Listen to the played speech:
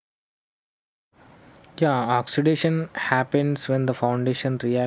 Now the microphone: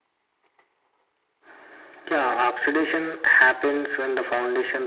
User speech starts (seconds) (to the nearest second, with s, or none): none